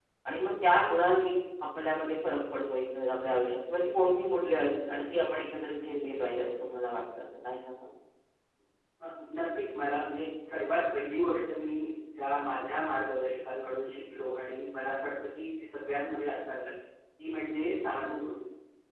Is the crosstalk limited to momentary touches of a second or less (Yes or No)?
Yes